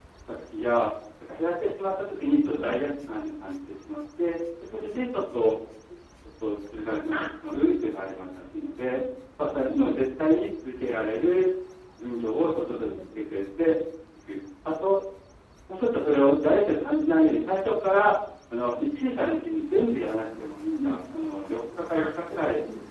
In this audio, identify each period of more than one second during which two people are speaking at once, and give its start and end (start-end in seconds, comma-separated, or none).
none